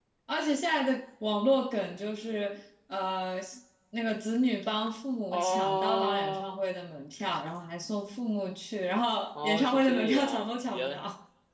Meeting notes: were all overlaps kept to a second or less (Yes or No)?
No